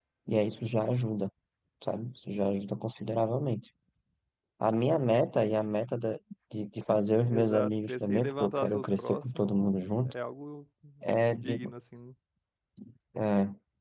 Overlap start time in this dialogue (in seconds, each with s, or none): 7.2 s